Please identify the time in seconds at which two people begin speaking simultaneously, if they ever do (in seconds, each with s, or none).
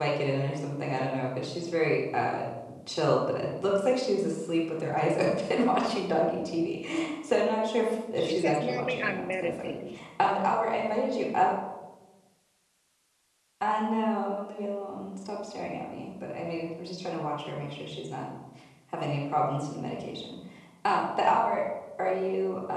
8.2 s